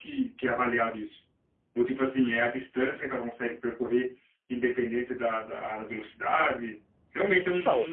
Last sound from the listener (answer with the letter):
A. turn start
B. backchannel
A